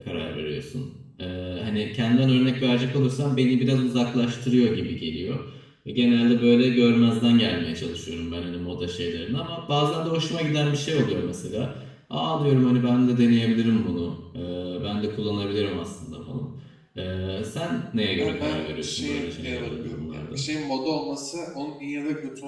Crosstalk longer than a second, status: present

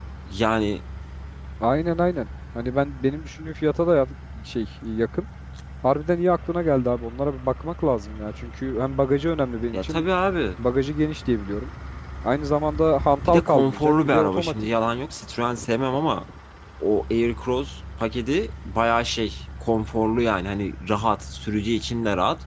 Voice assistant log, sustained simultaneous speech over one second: present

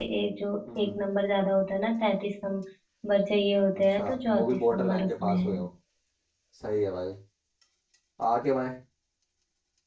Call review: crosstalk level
present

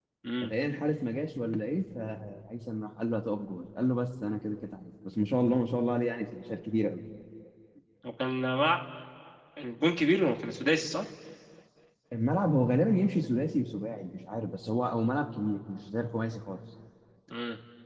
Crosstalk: none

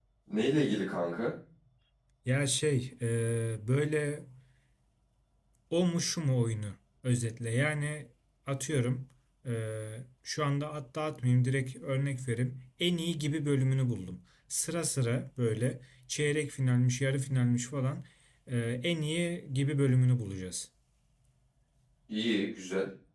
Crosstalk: none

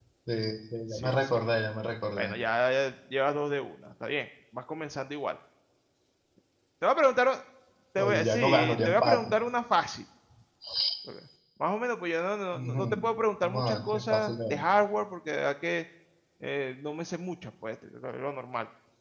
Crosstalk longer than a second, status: present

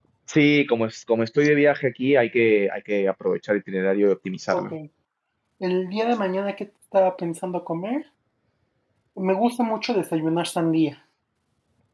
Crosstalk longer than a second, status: none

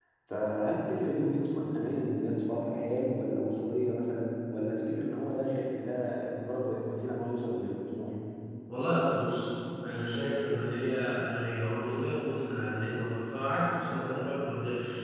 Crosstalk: none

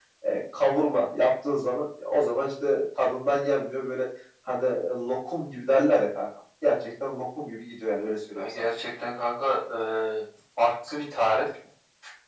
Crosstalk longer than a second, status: none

